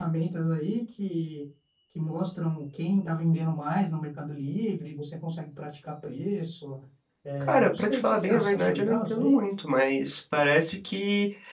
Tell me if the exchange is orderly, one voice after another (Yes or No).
No